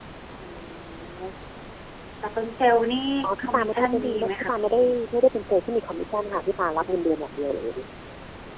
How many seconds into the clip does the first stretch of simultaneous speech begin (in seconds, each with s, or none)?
3.2 s